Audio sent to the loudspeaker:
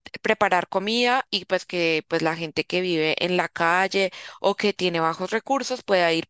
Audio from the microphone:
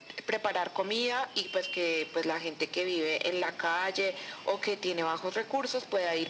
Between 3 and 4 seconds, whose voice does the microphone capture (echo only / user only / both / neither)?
echo only